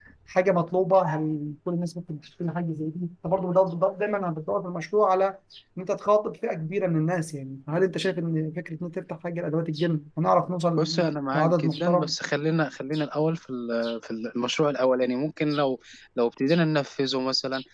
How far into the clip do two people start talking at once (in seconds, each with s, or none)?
10.8 s